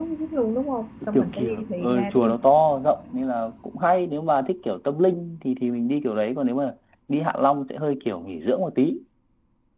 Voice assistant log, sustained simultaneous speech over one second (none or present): present